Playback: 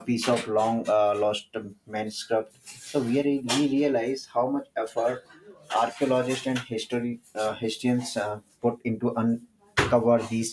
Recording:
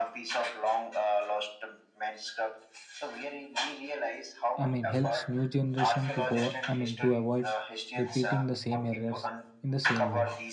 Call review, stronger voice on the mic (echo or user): user